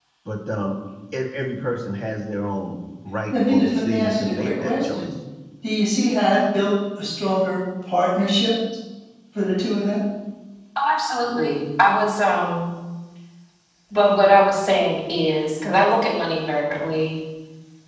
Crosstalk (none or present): present